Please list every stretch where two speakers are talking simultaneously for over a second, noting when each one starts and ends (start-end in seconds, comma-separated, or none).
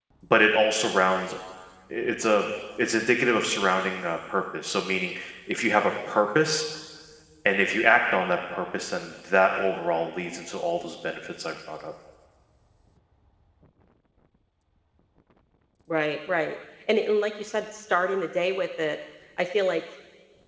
none